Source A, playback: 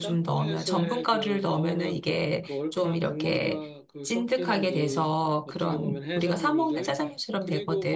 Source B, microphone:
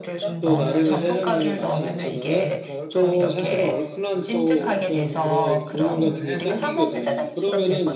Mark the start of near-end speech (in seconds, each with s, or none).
0.4 s